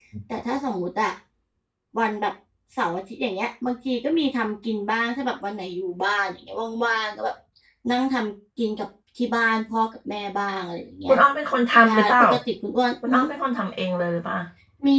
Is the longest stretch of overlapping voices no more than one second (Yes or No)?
Yes